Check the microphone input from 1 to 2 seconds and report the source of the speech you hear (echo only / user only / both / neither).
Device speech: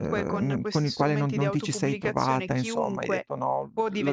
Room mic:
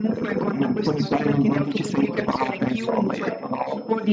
both